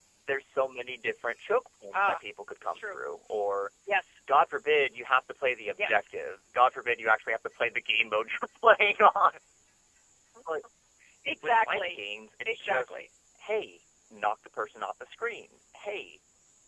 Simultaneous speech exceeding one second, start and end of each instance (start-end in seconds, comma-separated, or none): none